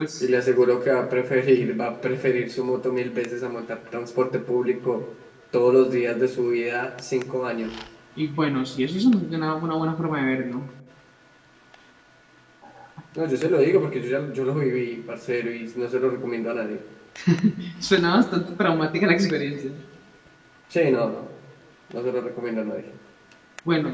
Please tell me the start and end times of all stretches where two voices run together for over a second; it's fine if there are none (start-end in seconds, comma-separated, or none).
none